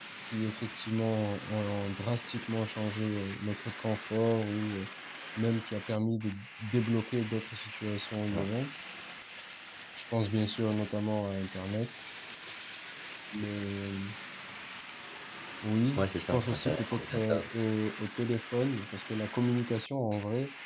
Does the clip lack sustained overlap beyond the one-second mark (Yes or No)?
No